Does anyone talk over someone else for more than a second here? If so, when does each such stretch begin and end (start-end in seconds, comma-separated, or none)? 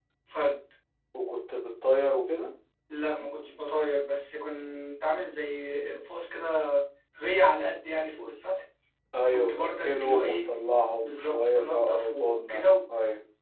9.2-10.5, 11.0-12.7